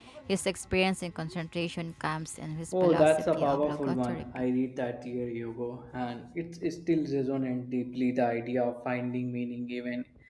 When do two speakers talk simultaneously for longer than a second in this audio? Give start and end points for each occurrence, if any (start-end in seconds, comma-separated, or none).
2.8-4.2